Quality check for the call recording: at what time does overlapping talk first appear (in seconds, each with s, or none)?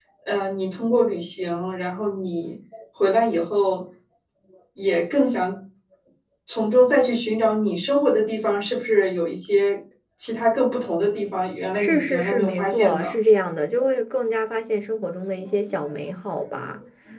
11.8 s